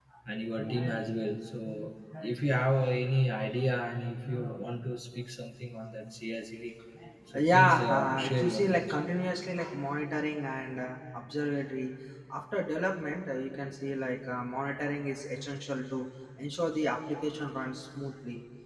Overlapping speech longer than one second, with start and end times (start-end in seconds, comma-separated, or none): 7.5-8.8